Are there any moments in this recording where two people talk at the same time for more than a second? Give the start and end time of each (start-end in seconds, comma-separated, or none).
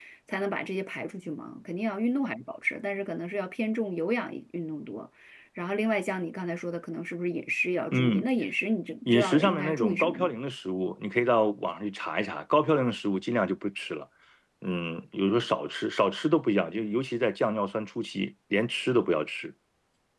9.1-10.3